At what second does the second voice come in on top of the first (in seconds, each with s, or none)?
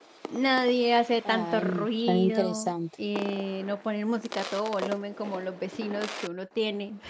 1.2 s